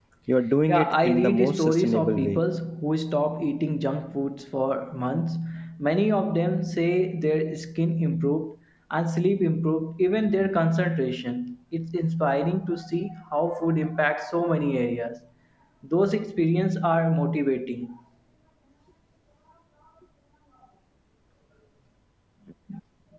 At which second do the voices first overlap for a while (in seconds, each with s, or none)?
0.7 s